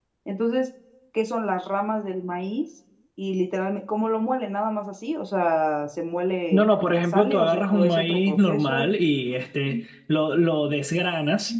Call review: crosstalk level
present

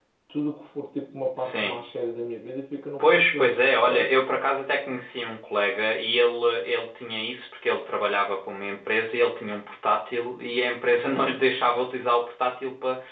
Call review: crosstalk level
present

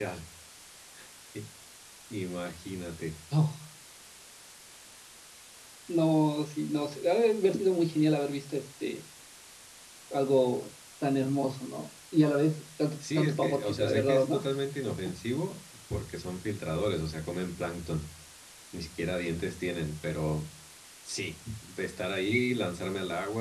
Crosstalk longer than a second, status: present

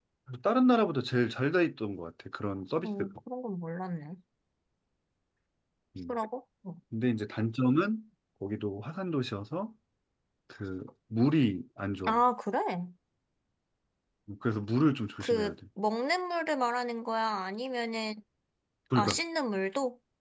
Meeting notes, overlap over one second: none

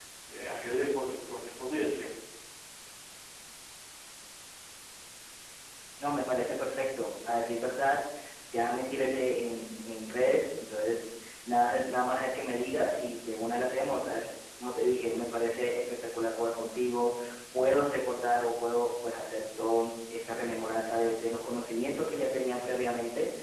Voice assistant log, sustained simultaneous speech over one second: none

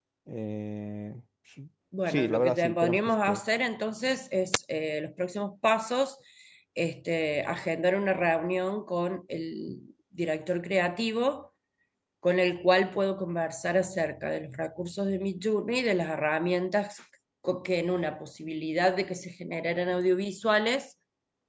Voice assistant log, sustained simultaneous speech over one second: present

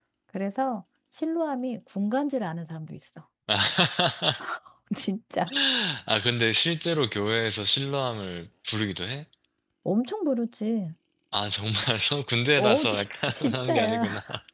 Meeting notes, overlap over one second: present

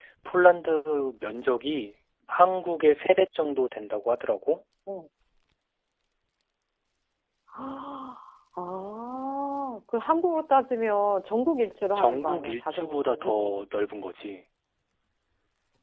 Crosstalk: present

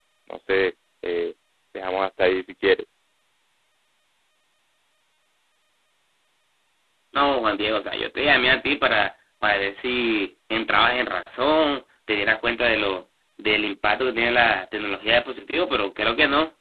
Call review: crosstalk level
none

